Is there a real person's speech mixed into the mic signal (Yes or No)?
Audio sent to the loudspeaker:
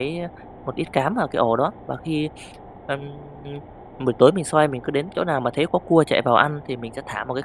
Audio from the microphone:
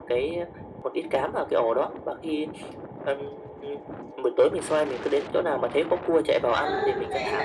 Yes